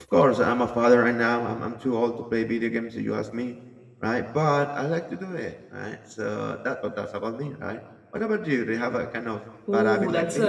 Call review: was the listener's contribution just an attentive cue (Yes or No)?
No